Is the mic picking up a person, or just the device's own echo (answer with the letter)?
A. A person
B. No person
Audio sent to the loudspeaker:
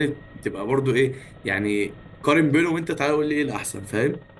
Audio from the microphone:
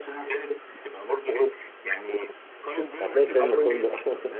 A